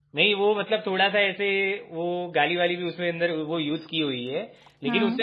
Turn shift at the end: No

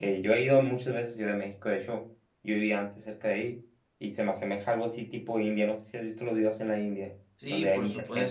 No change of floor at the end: No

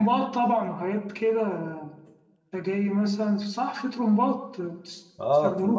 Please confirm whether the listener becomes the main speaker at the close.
Yes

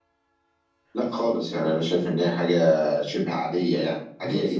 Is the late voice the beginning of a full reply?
Yes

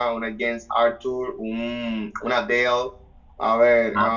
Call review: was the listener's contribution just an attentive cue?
Yes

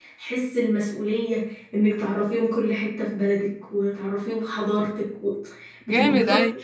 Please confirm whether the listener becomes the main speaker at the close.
Yes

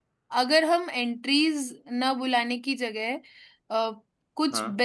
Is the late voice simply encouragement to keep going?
Yes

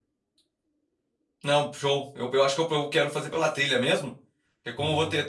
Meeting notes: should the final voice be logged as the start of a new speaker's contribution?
No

